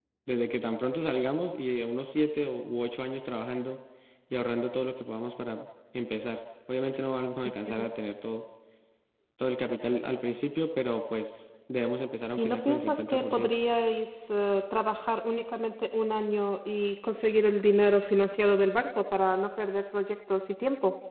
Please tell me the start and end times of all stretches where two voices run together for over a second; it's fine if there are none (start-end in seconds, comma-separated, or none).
12.3-13.6